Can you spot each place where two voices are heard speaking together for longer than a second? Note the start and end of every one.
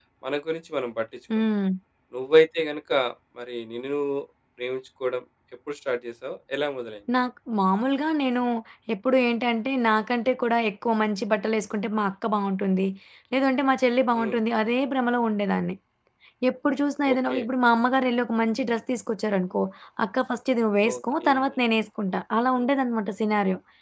none

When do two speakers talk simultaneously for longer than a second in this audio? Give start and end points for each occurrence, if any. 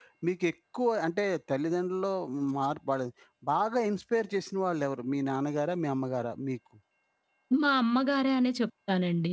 none

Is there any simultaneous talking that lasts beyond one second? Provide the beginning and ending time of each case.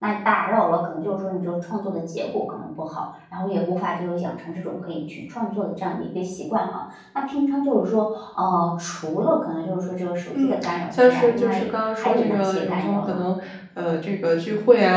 10.4-13.3

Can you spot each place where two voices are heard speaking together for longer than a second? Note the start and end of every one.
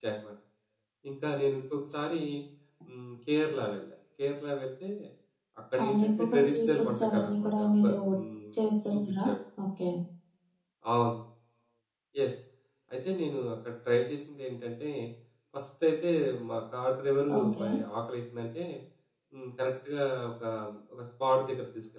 5.8-8.0

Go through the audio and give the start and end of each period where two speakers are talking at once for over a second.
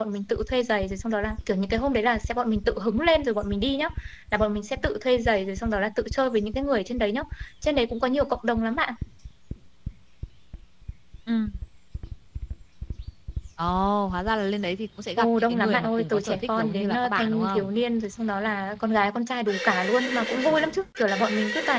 15.2-17.7

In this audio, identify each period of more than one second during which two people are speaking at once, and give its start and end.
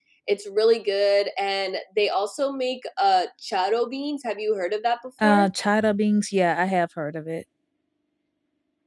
none

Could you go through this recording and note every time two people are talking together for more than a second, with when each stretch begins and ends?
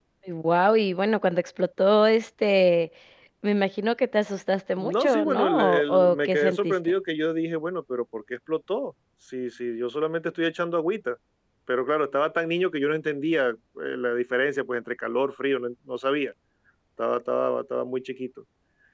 4.8-6.8

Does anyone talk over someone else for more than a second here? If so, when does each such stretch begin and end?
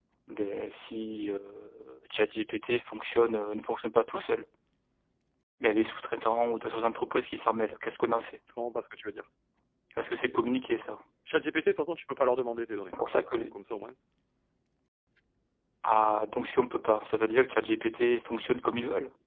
none

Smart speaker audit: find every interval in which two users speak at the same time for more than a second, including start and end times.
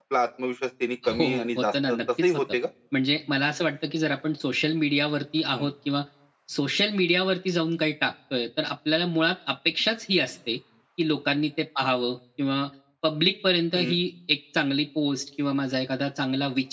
1.1-2.4

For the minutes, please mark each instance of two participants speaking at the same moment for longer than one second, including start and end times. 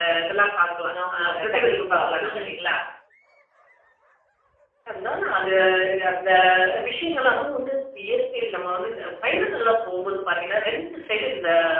1.1-2.5

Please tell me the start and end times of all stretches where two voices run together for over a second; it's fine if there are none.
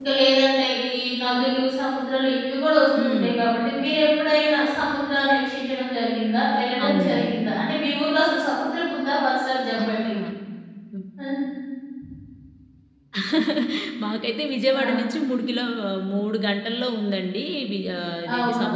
none

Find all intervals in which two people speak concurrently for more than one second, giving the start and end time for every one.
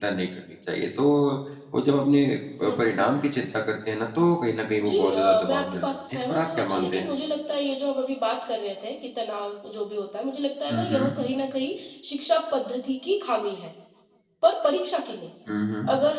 4.8-7.1

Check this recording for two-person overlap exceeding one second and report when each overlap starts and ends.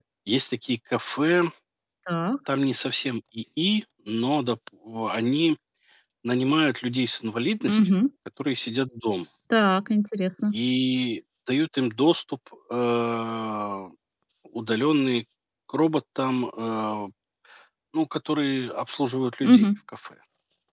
none

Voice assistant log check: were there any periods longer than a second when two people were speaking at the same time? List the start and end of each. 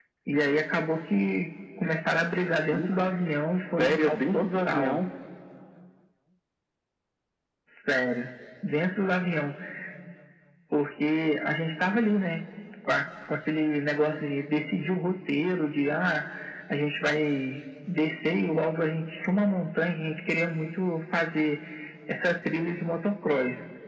3.8-5.0

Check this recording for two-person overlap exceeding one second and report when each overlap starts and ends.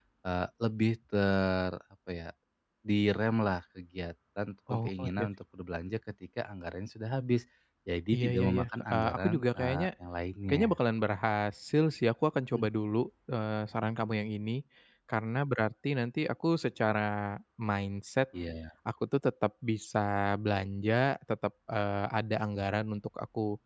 8.1-9.9

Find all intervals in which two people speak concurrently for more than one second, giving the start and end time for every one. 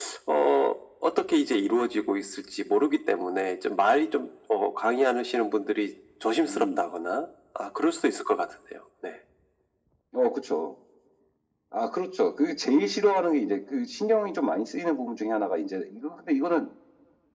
none

